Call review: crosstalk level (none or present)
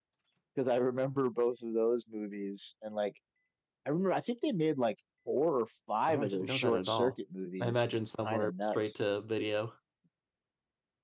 present